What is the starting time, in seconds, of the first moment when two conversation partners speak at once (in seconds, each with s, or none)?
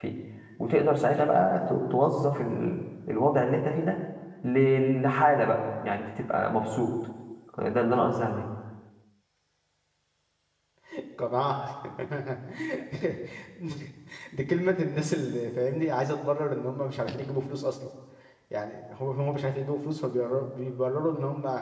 none